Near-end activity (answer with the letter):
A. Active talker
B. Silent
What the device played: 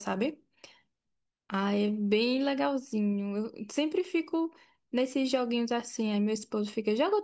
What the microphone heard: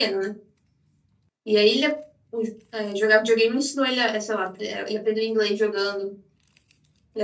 A